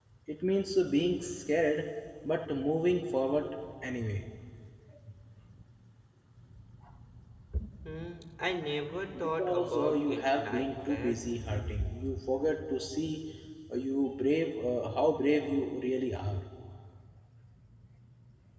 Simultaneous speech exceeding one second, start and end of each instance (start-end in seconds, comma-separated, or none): 9.2-11.2